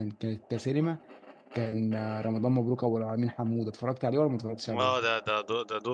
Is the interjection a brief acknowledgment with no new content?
No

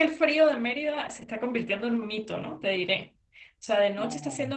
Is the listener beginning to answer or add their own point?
No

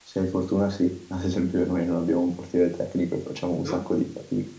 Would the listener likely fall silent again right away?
Yes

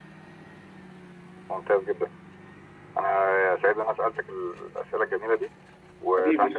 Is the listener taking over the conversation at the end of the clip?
Yes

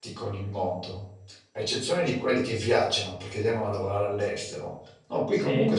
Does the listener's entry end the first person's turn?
No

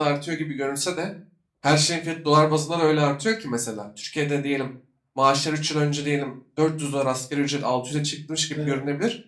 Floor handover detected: No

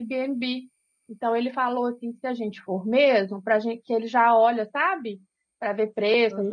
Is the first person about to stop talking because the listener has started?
No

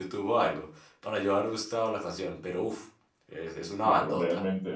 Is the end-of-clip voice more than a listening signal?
Yes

